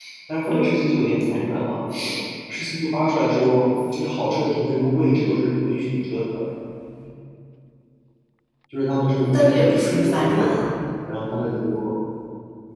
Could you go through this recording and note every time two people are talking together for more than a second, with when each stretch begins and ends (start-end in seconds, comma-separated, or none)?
9.3-10.6